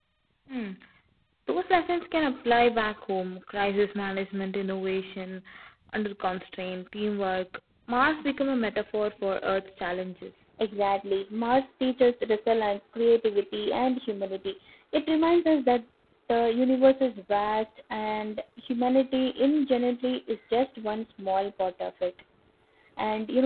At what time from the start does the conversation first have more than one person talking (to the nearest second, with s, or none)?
none